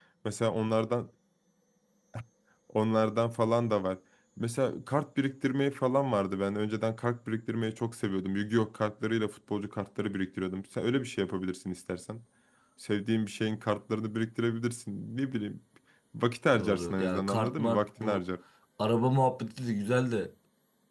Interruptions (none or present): present